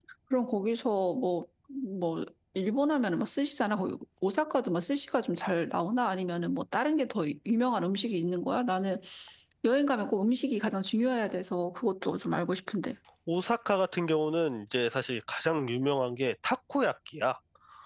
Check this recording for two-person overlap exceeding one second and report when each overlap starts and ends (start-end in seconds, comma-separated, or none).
none